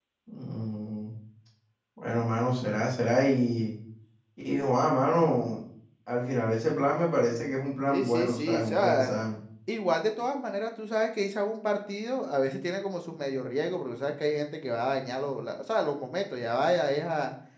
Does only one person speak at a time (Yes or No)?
No